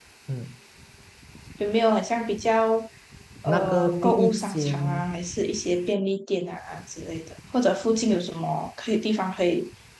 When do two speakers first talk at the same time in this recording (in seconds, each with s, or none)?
3.5 s